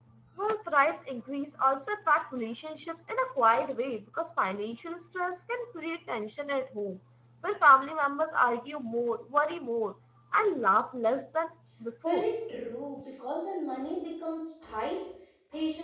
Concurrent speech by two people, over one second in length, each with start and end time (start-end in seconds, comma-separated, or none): none